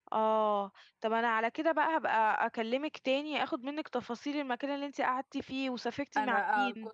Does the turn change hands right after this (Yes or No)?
Yes